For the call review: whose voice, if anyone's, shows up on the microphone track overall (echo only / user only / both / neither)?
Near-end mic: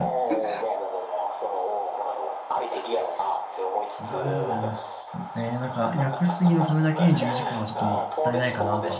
both